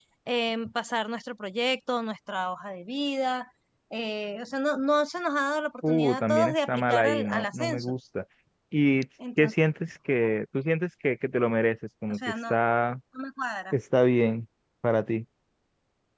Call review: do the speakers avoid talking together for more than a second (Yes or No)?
No